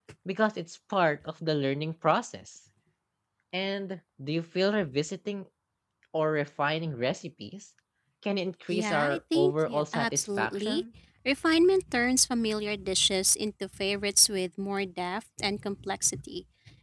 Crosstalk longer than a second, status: present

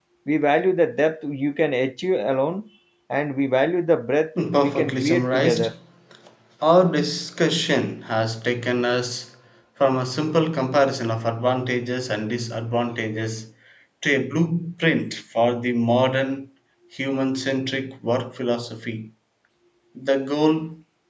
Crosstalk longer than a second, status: present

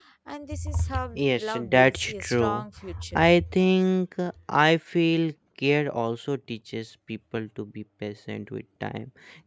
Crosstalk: present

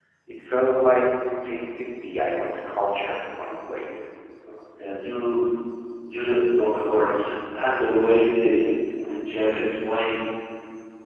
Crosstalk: none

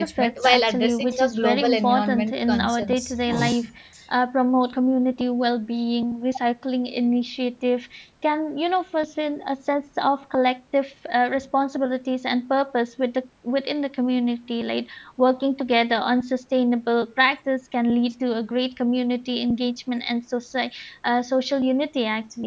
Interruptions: present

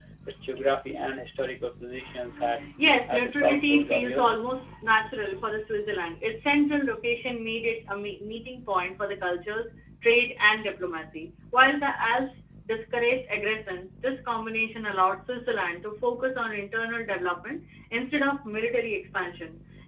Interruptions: present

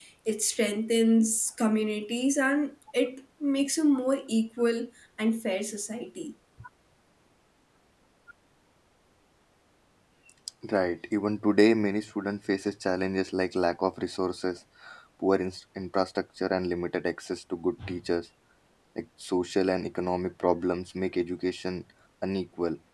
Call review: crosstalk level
none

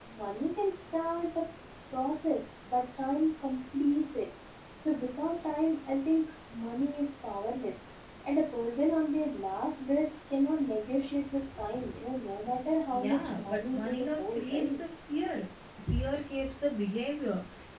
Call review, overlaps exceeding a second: present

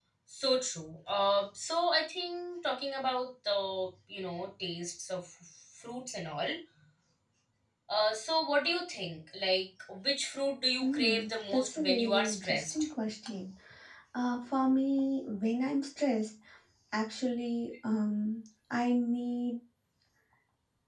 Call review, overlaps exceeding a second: present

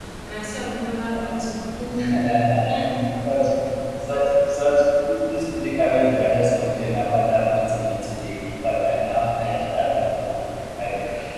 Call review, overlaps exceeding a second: none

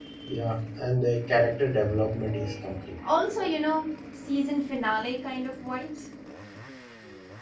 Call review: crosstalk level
none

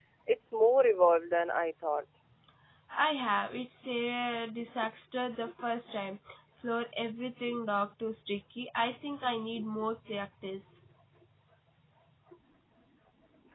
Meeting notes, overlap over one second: none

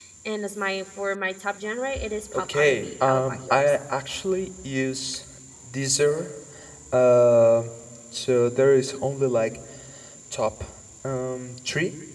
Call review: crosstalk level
present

